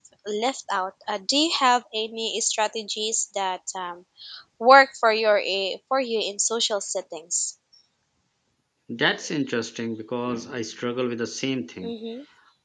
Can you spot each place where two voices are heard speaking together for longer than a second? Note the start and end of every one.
none

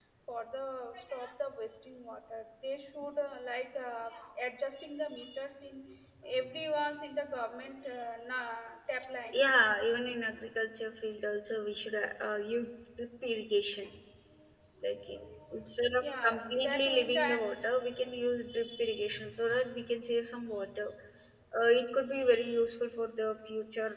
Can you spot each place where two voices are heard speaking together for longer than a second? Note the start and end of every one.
16.0-17.4

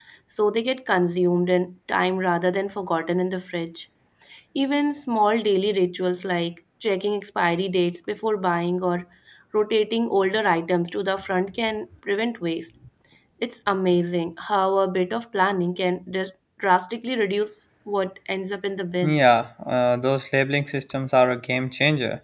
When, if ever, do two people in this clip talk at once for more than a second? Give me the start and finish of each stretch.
none

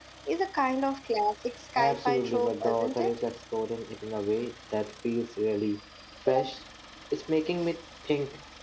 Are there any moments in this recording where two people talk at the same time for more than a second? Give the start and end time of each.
1.8-3.1

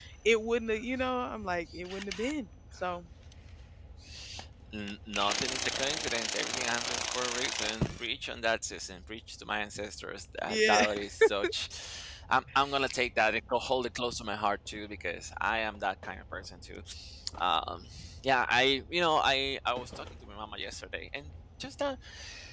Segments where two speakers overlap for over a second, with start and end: none

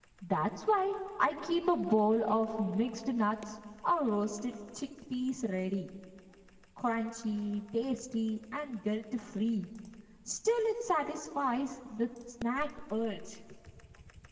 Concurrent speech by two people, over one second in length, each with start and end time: none

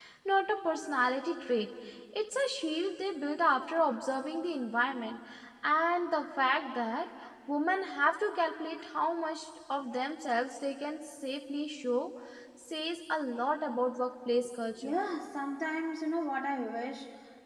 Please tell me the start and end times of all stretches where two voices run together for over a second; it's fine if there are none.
none

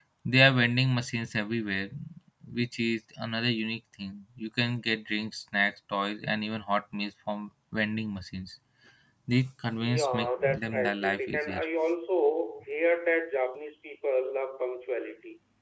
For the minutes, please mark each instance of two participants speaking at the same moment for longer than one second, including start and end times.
9.9-11.6

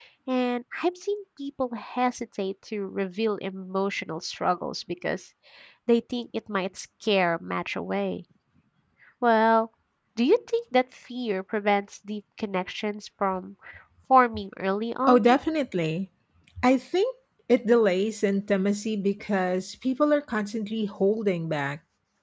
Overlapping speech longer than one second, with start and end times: none

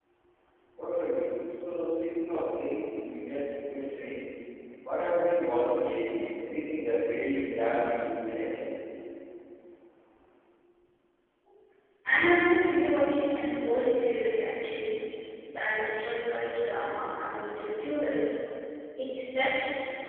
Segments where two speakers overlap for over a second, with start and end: none

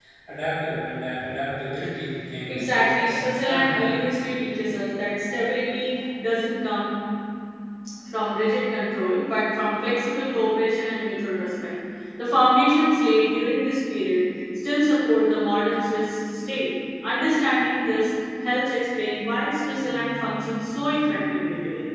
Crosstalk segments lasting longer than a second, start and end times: 2.5-3.7

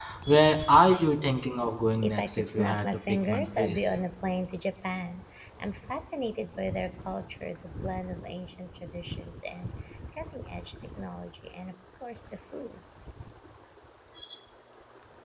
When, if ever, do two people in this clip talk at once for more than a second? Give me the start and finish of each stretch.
2.0-4.0

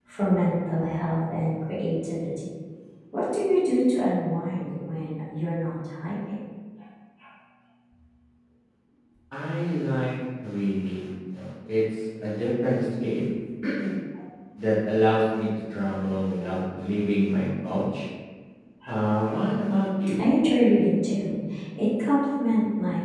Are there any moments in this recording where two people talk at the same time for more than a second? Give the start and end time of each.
none

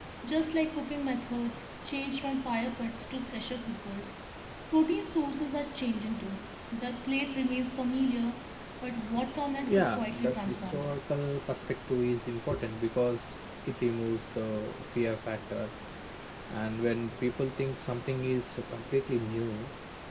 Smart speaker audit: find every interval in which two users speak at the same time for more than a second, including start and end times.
9.6-10.9

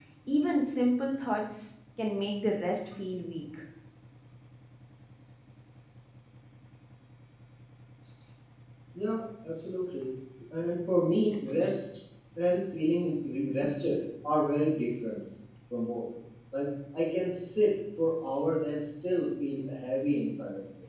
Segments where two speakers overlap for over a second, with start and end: none

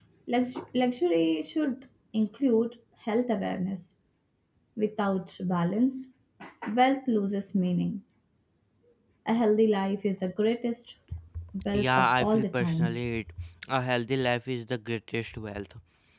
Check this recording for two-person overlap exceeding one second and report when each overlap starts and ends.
11.7-13.0

